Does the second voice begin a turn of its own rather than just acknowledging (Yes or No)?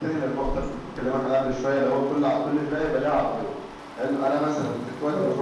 No